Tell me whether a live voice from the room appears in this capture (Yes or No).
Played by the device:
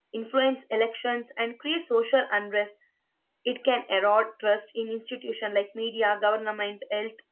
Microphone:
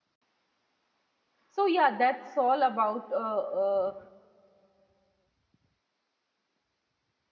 Yes